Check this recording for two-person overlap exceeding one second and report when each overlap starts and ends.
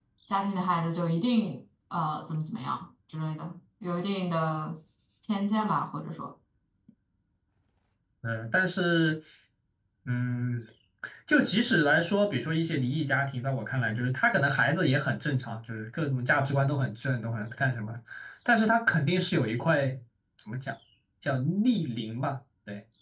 none

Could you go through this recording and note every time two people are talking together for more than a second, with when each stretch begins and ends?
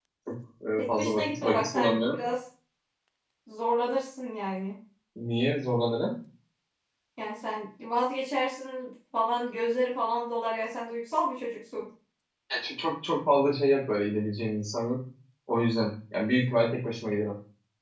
0.8-2.2

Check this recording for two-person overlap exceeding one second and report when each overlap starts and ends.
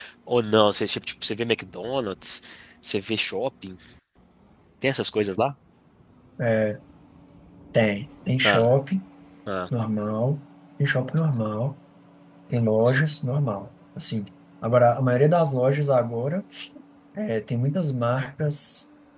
none

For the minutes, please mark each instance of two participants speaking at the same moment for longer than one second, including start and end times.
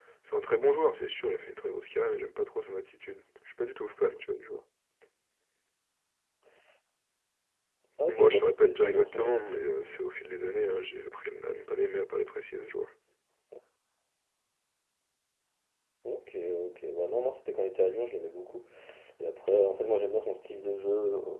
8.1-9.7

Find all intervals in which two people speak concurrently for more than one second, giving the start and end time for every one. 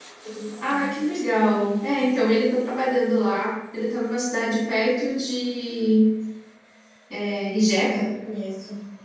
none

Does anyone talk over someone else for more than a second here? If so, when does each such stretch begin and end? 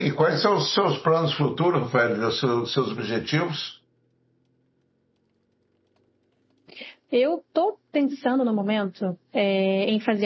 none

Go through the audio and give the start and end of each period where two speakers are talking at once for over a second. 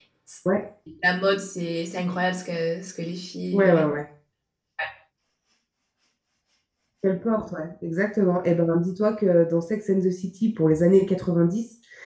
none

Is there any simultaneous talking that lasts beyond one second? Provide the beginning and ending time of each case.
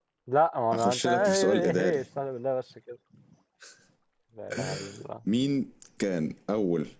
0.7-2.0

